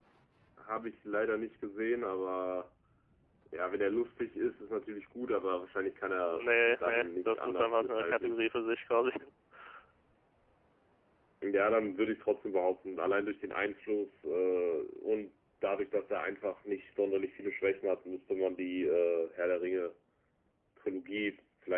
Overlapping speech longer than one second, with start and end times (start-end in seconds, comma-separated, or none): 6.3-8.4